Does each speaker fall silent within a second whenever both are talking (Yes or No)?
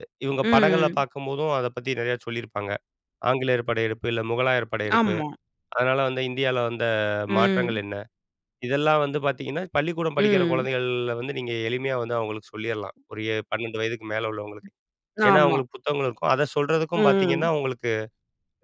Yes